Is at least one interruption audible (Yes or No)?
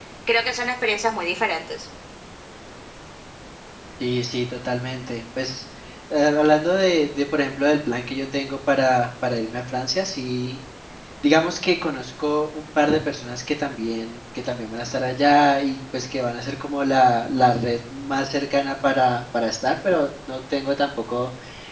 No